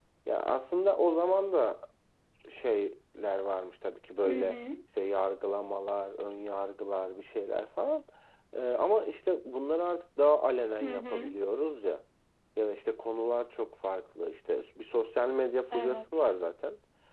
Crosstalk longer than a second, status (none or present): none